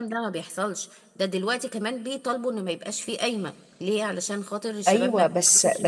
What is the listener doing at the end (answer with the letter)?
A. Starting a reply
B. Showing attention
A